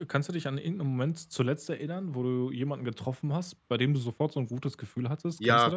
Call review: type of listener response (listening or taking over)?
taking over